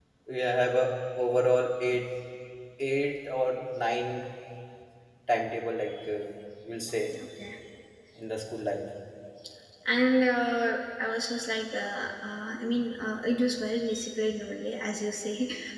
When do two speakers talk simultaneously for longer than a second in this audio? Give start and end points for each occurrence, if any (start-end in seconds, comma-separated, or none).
none